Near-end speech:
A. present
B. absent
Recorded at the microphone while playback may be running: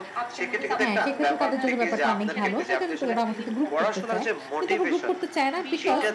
A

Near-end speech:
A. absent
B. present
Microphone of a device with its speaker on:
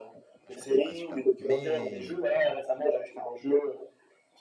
B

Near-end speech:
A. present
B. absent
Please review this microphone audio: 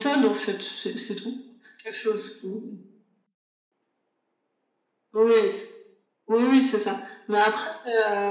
B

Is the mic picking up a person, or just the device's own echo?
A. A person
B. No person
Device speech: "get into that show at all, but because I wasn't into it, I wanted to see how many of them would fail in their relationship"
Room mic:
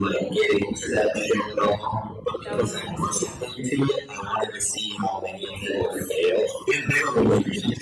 A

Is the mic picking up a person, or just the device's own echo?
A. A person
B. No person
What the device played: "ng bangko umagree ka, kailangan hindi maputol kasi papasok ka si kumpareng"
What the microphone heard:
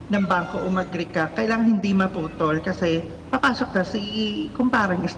B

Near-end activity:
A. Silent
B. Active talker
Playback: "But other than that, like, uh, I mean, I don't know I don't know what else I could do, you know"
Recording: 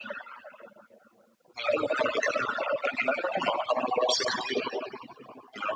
A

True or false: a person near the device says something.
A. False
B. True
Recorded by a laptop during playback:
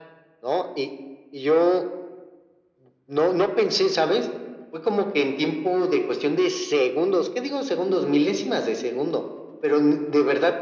A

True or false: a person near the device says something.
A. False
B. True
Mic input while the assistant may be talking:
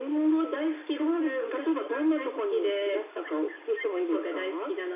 A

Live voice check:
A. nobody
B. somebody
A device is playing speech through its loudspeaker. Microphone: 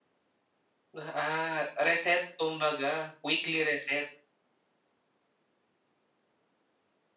B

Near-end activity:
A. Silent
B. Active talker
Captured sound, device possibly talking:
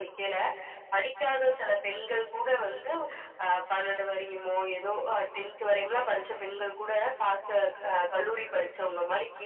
A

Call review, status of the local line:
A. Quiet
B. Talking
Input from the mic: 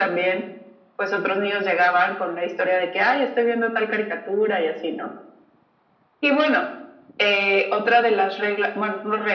A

